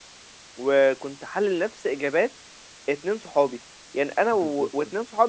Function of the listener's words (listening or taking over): listening